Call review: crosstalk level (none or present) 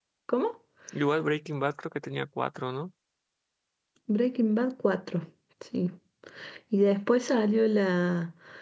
none